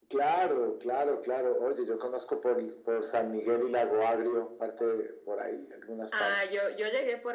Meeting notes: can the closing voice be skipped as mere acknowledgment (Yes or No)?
No